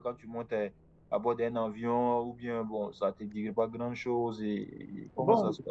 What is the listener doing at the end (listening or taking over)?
taking over